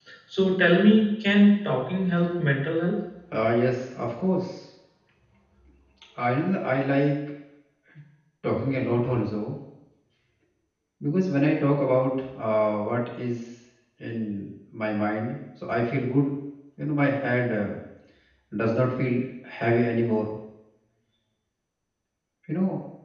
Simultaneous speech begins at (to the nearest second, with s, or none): none